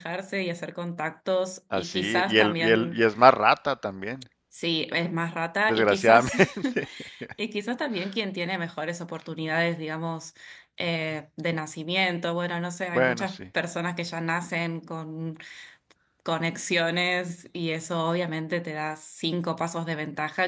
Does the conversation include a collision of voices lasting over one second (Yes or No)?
Yes